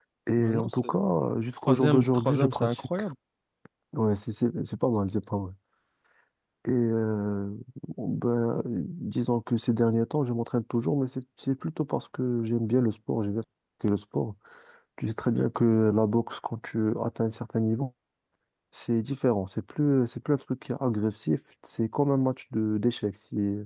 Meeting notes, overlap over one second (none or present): present